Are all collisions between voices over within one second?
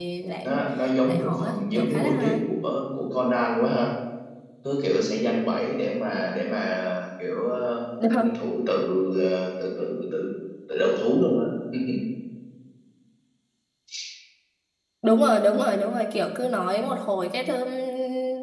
No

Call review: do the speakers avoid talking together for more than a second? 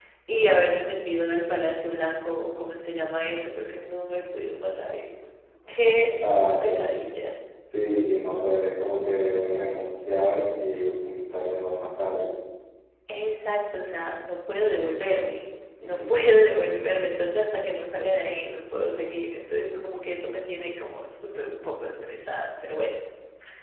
Yes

